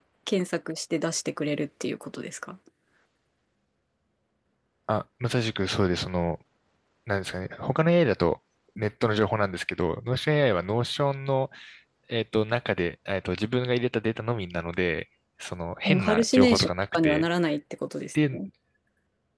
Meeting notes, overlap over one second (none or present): present